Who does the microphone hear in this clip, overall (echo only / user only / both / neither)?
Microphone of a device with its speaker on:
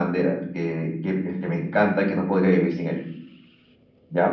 echo only